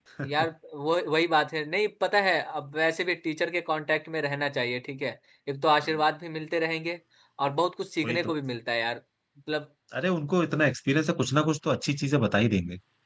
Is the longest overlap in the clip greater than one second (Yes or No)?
No